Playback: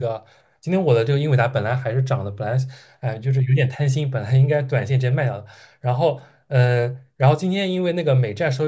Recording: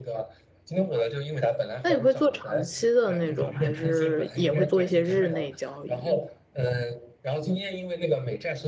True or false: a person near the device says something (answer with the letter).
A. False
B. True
B